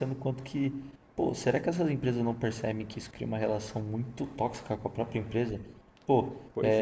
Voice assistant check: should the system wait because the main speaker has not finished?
Yes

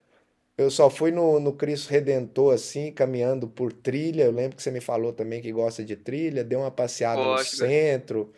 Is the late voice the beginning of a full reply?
No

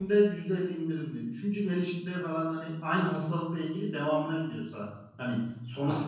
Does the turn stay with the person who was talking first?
No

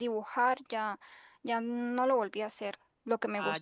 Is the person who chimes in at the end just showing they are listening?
Yes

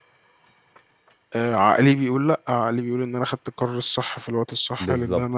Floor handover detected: Yes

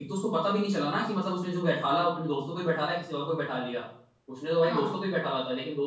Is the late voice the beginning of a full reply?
No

